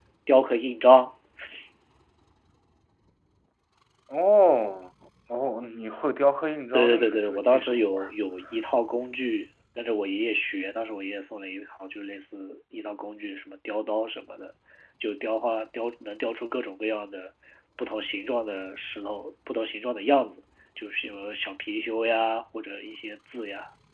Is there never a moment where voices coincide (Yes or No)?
No